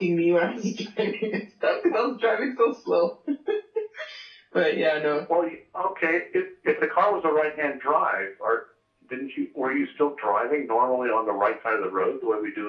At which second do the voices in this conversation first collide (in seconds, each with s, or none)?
none